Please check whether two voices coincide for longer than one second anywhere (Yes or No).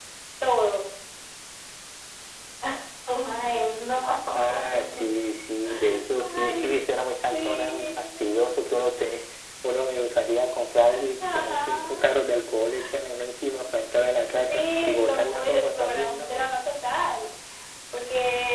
Yes